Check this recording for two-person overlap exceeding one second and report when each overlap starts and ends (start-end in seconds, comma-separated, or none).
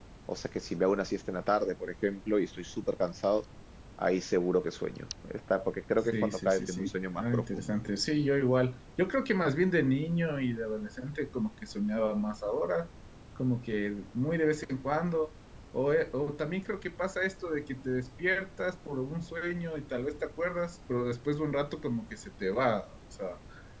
6.1-7.8